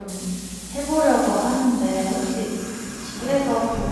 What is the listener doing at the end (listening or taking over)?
listening